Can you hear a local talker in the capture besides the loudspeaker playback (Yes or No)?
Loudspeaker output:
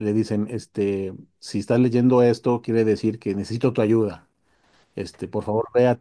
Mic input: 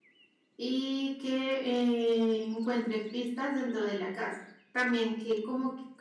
Yes